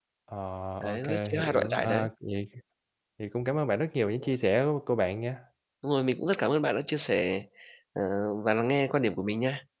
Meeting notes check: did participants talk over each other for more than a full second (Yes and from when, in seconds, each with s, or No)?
Yes, from 0.8 s